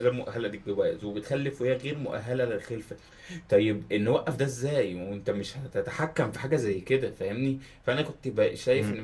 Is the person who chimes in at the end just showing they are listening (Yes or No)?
Yes